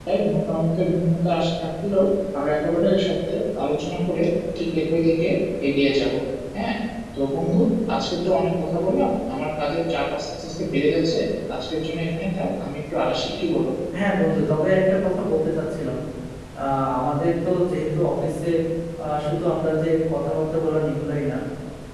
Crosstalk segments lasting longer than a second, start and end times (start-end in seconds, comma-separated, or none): none